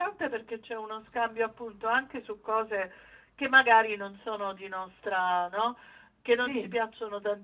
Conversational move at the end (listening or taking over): listening